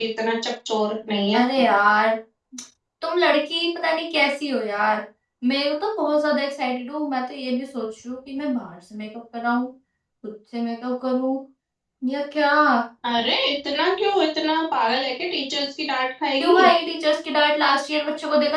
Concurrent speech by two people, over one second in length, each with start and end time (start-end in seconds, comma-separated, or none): none